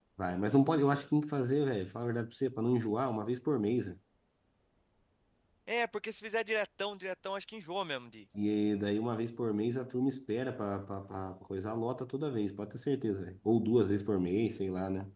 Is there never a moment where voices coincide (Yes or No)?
Yes